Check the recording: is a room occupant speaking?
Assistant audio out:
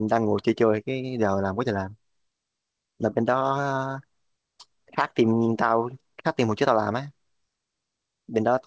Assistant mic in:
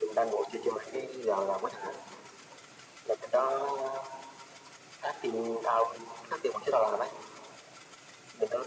No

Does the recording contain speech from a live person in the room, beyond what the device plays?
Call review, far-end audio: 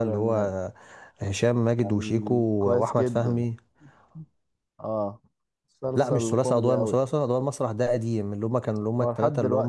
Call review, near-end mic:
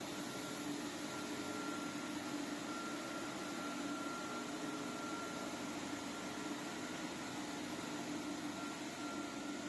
No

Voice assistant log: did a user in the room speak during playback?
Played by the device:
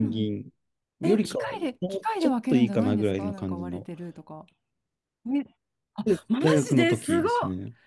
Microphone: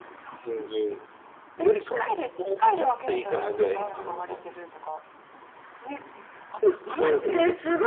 No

